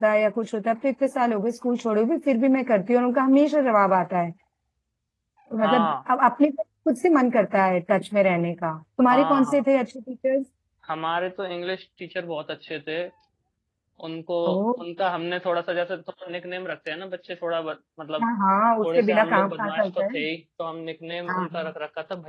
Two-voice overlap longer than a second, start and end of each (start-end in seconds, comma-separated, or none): 18.8-20.2